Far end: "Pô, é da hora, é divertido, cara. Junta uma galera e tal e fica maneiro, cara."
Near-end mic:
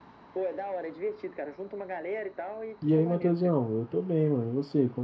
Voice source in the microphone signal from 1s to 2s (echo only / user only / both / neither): echo only